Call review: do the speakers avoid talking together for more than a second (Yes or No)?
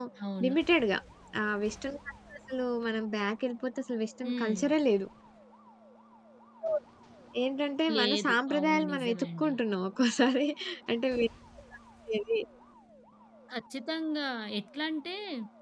No